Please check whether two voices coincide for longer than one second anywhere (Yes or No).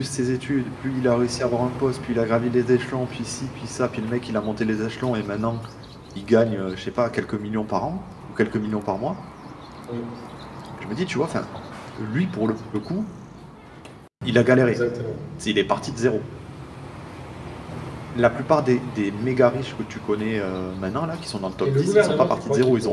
Yes